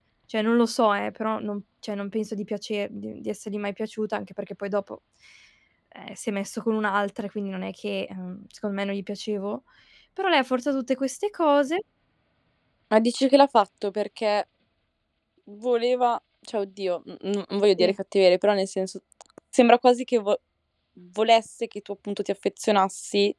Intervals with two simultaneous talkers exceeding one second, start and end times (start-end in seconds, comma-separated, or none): none